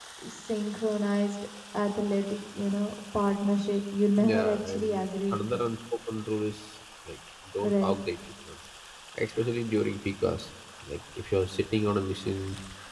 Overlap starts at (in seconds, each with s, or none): 4.2 s